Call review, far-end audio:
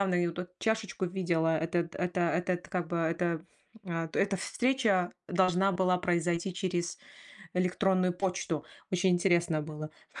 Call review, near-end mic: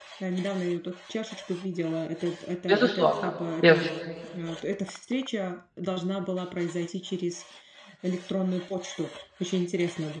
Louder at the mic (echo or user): user